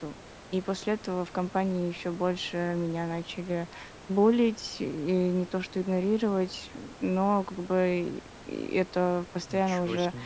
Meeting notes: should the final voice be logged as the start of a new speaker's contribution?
No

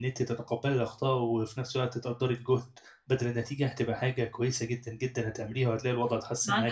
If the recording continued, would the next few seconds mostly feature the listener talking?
Yes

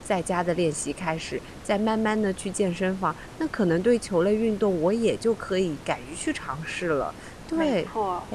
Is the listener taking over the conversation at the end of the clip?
Yes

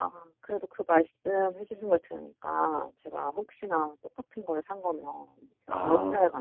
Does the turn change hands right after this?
No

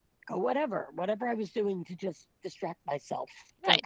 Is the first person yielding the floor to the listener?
Yes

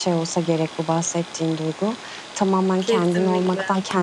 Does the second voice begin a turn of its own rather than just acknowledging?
No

